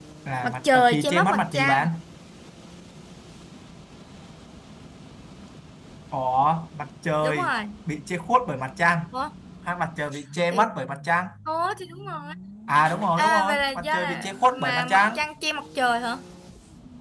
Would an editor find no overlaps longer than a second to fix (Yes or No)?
No